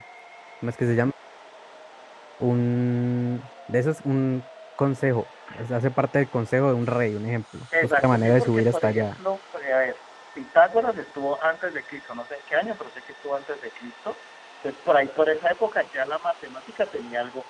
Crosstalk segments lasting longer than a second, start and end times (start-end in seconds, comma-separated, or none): 7.8-9.1